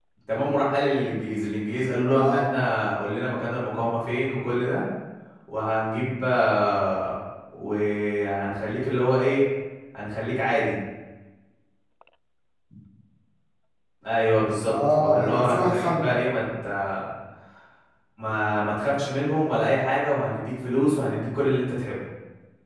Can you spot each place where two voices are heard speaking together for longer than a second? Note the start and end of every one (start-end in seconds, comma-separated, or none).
14.7-16.2